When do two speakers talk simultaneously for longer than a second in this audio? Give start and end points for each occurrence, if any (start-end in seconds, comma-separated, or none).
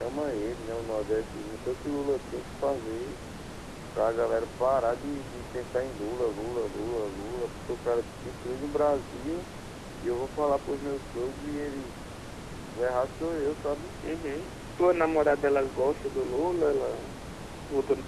none